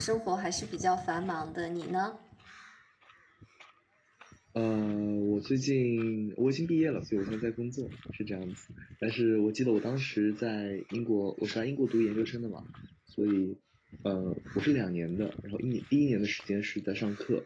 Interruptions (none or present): none